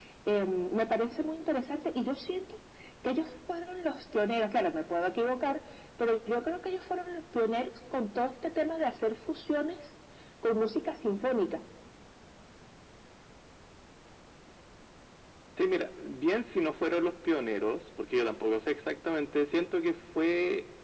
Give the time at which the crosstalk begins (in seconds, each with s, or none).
none